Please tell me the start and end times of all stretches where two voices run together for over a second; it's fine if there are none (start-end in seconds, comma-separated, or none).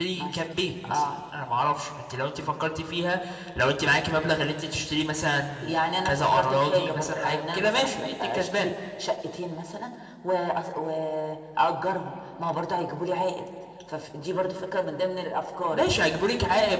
6.0-8.7